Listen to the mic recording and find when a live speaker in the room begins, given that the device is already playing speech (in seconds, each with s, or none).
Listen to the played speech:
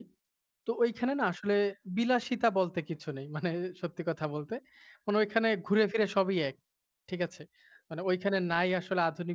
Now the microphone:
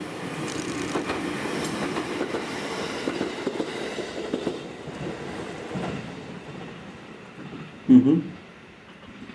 7.9 s